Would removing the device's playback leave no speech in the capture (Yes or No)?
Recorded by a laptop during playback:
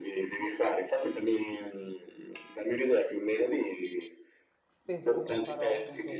No